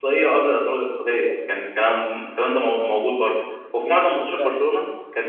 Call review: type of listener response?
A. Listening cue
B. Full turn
A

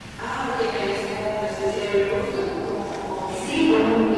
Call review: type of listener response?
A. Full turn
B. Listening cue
A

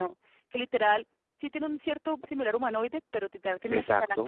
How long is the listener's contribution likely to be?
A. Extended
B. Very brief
B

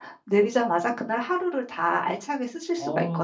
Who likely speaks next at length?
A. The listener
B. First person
A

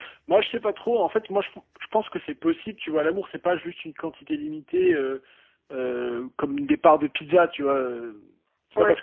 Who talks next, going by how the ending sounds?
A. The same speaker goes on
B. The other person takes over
A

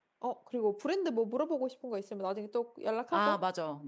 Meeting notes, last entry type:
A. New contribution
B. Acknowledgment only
A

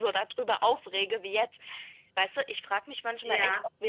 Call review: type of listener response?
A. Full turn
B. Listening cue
B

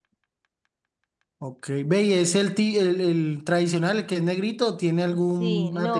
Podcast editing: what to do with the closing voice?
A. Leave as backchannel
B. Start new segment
B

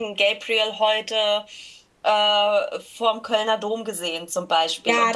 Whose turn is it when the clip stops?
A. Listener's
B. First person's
A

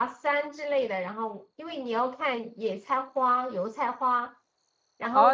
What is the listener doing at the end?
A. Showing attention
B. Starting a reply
B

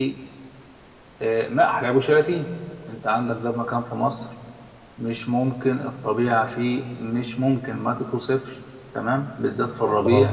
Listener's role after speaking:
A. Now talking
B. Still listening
B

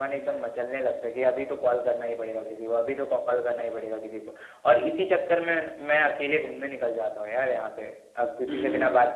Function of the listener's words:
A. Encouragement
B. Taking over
A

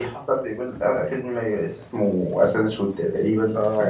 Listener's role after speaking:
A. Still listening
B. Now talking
B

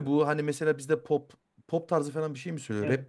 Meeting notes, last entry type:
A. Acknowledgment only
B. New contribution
B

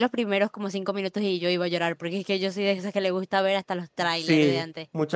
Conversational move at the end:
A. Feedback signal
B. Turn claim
B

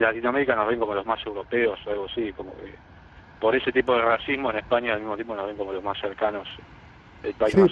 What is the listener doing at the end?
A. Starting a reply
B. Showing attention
A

